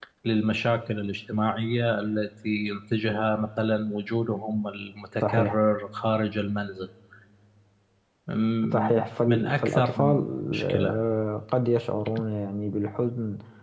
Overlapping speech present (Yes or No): Yes